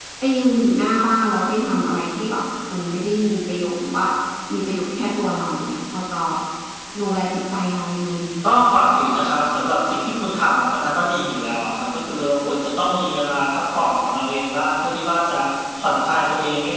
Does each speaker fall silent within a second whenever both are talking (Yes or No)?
Yes